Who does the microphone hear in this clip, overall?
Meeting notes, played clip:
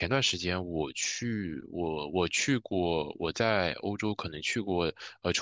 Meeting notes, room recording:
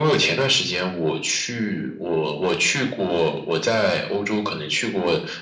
echo only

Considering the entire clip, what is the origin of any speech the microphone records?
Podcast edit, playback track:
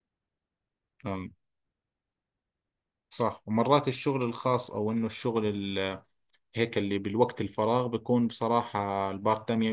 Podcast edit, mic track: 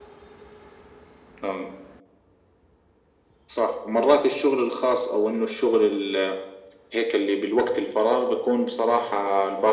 echo only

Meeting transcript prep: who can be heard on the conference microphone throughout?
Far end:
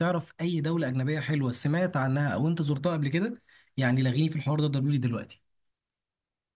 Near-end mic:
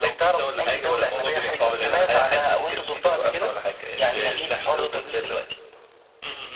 both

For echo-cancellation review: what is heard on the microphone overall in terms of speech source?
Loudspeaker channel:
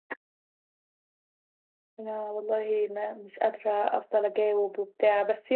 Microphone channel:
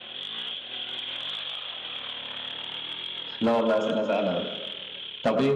user only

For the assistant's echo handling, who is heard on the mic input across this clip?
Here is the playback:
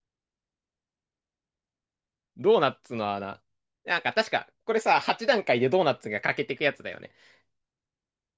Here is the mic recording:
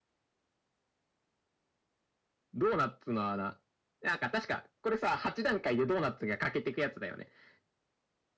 echo only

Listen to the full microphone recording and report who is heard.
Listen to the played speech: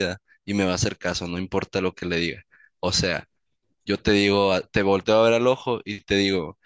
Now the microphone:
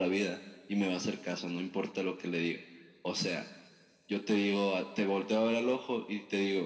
echo only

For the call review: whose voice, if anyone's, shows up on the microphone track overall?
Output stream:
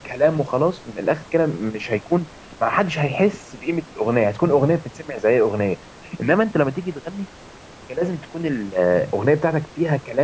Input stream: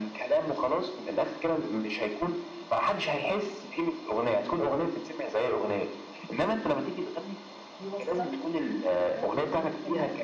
both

